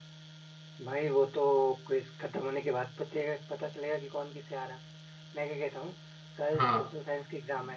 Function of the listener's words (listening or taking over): listening